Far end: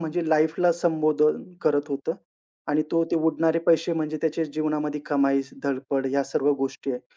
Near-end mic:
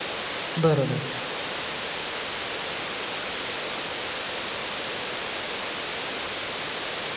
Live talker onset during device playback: 0.6 s

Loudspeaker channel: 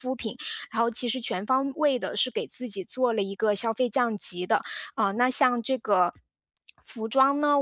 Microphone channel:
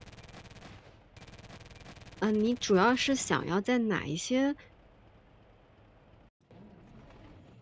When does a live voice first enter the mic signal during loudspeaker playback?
2.2 s

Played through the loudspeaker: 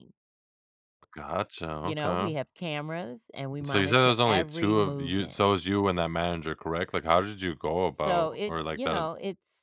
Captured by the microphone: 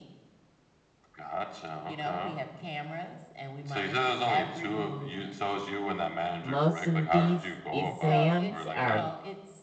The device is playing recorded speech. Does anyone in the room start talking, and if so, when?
6.4 s

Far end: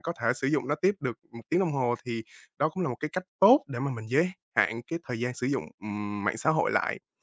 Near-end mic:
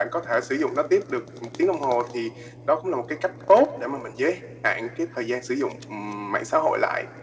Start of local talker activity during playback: none

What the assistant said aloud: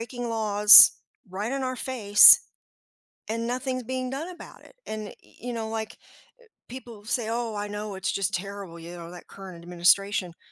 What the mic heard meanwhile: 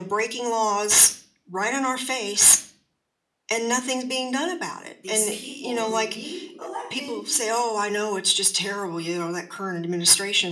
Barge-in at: 5.0 s

